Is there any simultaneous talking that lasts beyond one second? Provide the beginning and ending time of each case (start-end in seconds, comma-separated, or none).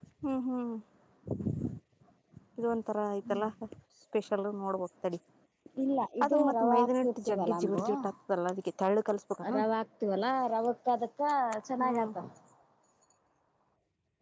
6.2-7.8